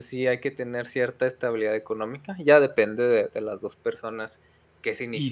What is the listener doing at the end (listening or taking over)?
taking over